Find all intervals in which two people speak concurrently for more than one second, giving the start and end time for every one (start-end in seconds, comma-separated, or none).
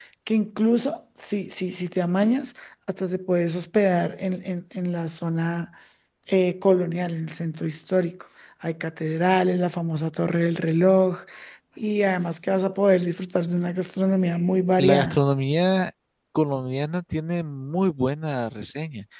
none